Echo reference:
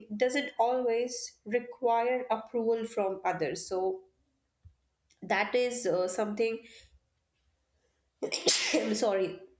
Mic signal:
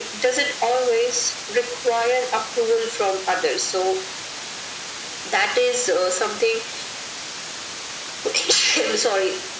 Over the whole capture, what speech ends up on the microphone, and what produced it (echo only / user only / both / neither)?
echo only